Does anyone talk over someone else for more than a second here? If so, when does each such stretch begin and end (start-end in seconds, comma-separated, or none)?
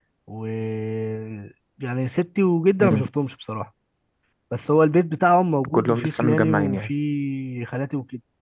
5.7-6.9